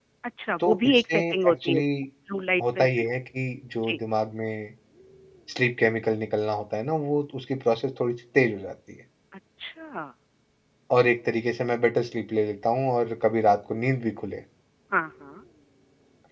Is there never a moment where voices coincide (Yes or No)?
No